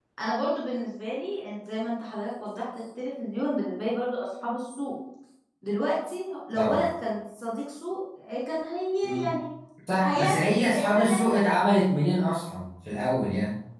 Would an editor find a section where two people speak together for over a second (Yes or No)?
Yes